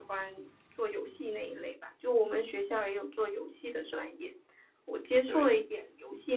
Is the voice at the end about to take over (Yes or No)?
No